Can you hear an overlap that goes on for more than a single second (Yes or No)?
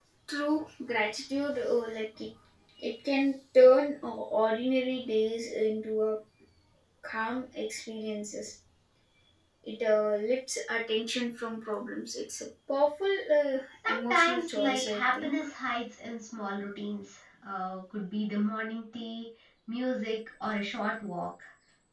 Yes